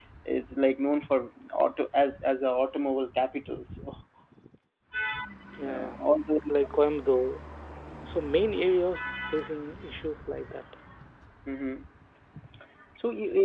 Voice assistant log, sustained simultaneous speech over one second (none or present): none